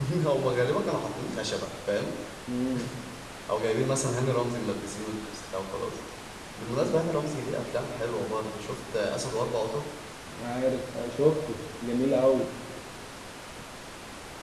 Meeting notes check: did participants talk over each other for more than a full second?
No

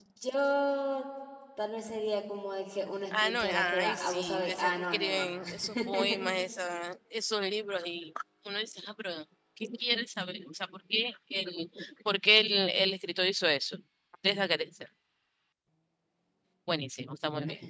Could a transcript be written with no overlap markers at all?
No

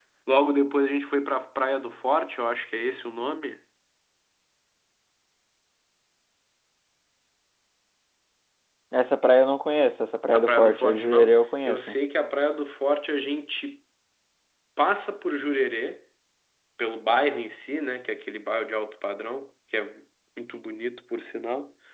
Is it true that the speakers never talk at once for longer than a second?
No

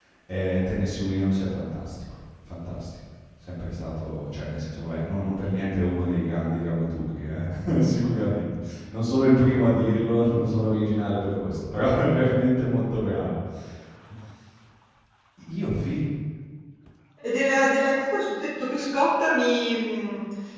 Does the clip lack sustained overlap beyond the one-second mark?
Yes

